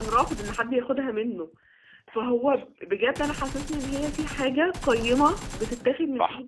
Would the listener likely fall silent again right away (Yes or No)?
Yes